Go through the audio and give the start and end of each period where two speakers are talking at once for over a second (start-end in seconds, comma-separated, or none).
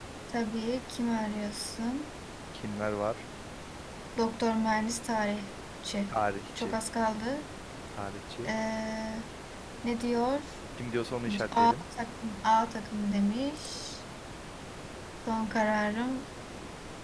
none